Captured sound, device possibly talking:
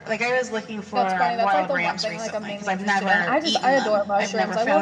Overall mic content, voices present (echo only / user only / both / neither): both